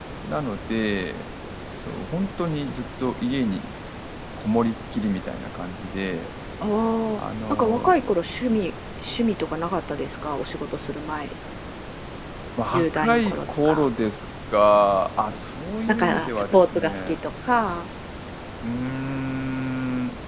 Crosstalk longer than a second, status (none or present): present